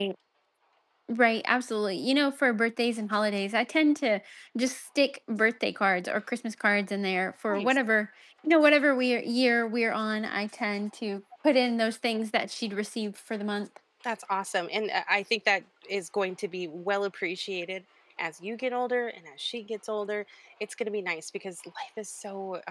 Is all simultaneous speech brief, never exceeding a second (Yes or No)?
Yes